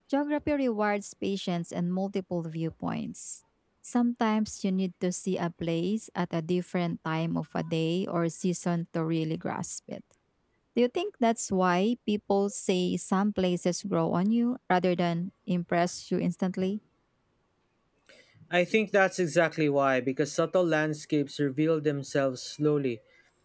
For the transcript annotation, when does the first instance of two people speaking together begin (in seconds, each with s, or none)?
none